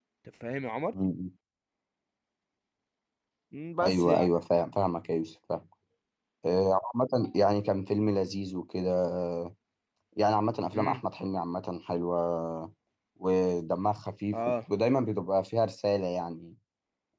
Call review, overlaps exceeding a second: none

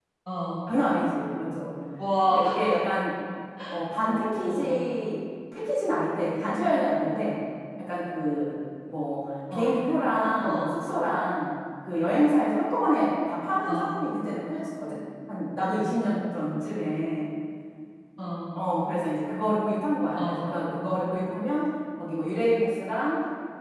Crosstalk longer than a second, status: none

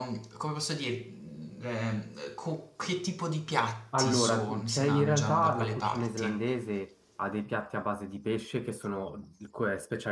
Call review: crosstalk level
present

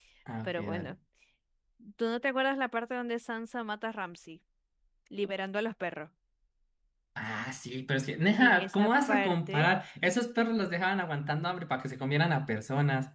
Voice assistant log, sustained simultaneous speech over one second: present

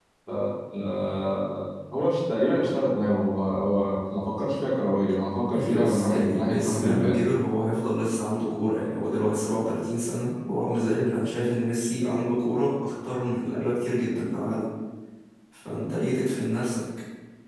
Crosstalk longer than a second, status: present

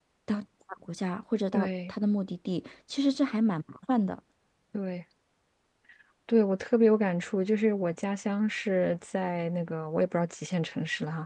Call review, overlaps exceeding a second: none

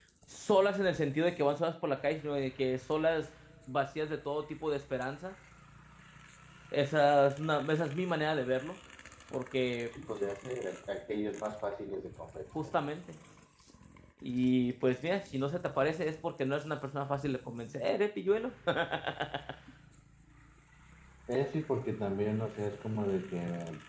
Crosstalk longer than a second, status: none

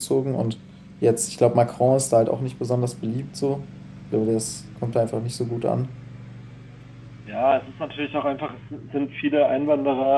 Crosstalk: none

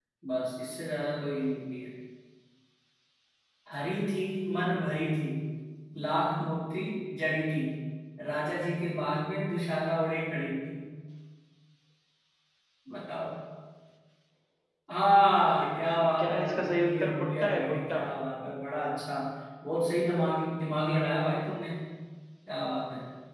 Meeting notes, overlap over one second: present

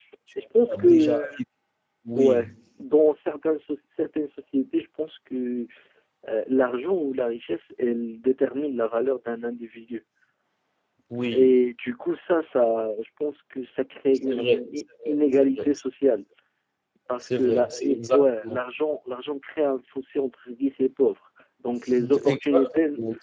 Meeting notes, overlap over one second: present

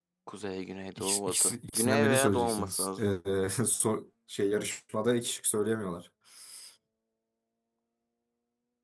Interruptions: present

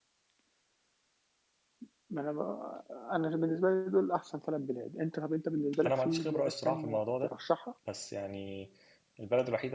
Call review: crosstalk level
present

